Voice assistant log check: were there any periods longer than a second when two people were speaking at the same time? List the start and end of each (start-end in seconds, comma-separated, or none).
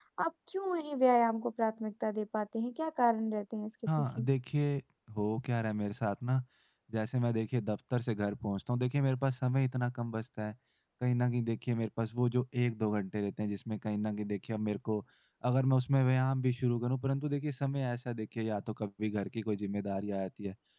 none